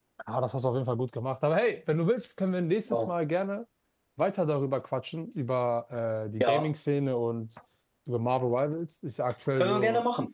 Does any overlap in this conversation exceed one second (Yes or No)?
No